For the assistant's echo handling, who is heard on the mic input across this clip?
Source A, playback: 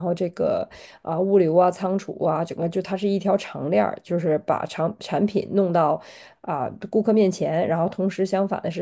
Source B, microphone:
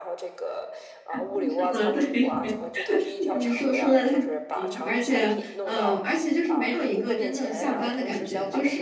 both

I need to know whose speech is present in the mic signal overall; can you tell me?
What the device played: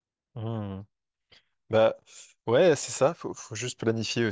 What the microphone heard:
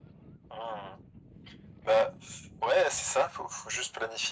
echo only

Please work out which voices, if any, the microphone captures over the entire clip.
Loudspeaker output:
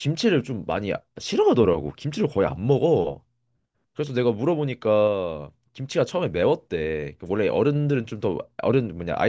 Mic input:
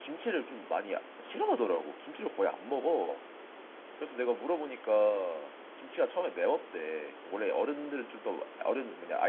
echo only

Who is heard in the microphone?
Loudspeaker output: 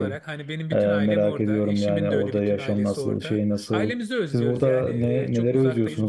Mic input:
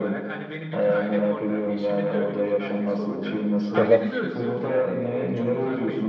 both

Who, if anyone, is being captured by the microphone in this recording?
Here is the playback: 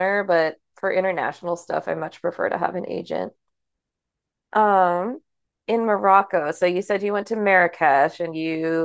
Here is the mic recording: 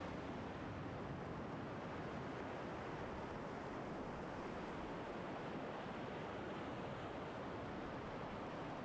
neither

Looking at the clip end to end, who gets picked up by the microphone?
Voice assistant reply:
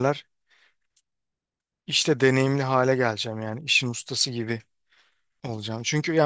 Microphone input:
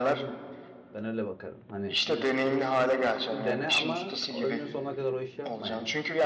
both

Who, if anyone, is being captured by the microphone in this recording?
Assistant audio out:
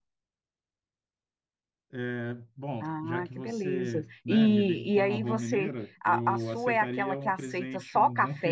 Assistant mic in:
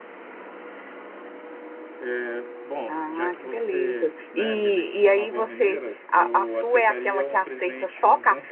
echo only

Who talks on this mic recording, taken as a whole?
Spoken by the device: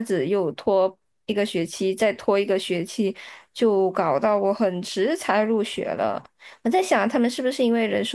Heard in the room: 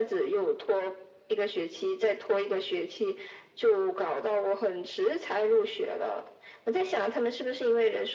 echo only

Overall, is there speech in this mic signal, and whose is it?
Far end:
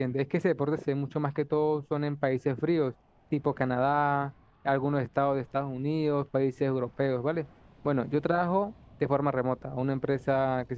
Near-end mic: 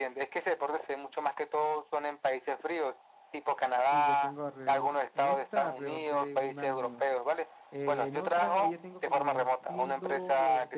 both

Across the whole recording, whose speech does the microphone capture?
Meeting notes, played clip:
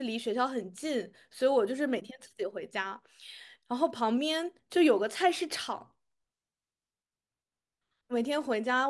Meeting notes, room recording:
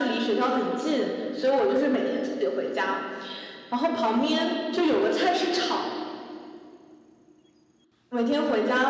echo only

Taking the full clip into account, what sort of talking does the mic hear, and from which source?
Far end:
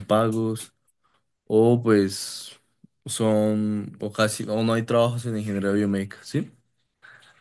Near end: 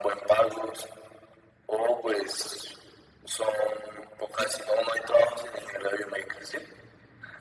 echo only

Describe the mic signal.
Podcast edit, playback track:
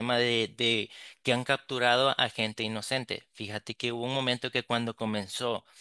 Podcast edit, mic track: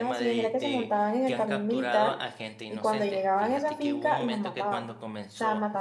both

